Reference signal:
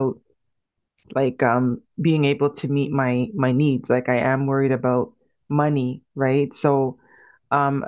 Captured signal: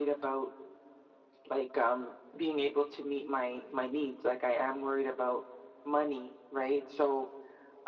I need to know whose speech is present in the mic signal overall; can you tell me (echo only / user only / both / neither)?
echo only